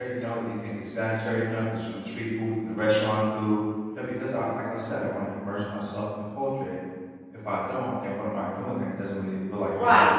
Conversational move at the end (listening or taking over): taking over